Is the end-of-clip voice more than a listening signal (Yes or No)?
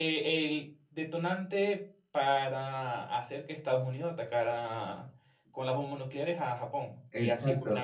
Yes